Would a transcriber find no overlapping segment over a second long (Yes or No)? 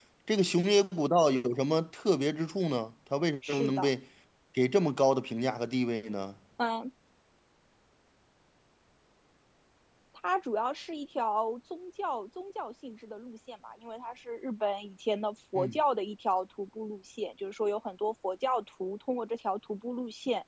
Yes